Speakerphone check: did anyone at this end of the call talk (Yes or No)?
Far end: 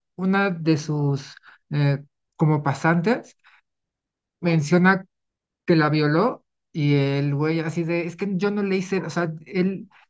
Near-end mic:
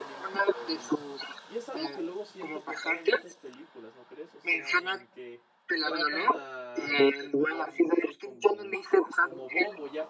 Yes